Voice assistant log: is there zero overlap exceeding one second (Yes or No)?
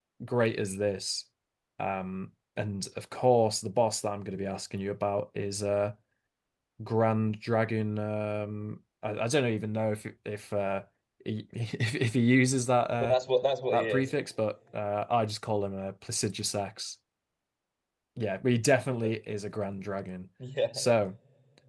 Yes